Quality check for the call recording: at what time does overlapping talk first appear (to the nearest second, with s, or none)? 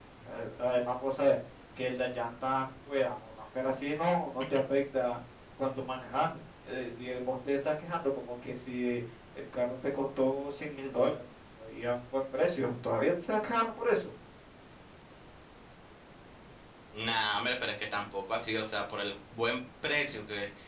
none